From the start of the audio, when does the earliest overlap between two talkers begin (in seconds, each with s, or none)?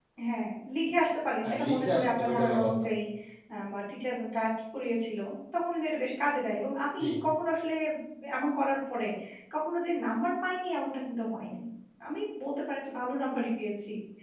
1.4 s